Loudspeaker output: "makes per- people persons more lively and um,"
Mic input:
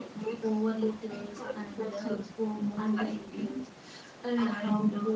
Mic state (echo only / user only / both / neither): both